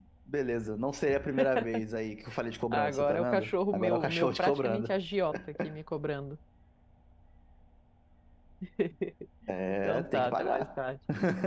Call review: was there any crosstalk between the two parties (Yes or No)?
Yes